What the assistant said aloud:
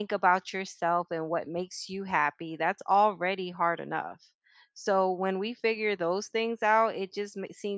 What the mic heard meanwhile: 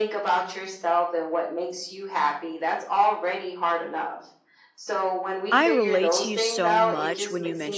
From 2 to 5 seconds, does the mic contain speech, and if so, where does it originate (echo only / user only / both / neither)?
echo only